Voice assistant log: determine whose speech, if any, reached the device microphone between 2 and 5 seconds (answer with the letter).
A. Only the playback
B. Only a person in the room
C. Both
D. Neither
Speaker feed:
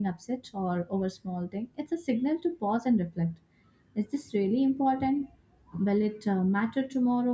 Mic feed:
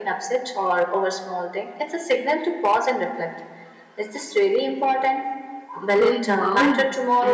A